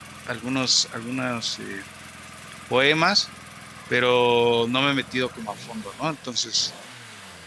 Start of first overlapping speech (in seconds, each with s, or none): none